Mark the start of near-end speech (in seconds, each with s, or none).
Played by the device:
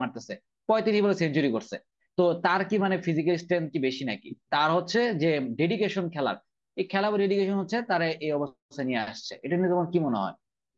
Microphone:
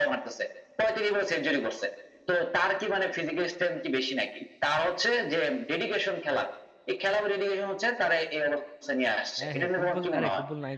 9.4 s